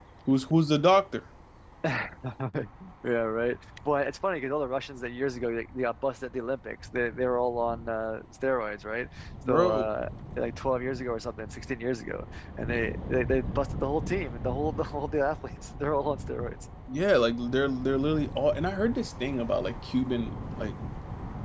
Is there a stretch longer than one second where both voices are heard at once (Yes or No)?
No